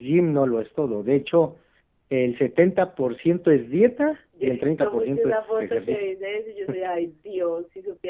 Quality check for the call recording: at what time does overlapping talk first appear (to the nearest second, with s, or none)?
4 s